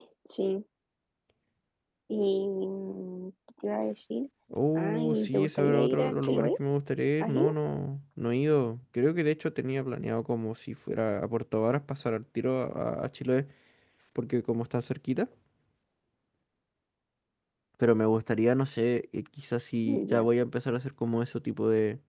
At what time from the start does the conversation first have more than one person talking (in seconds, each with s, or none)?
4.8 s